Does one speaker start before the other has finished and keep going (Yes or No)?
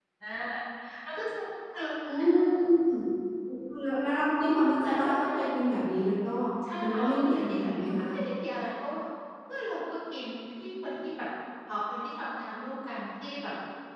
Yes